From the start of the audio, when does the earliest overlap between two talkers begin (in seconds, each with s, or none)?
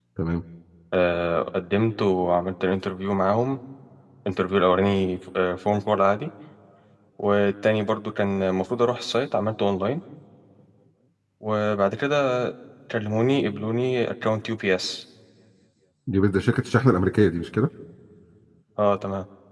none